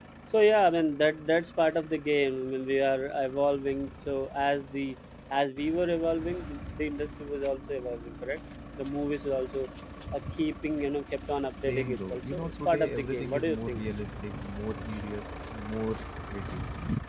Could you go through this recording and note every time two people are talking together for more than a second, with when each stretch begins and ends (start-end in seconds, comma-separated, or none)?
11.6-13.8